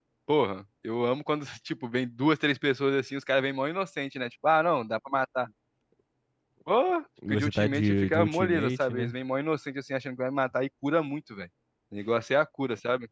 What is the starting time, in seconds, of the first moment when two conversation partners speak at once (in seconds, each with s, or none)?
7.3 s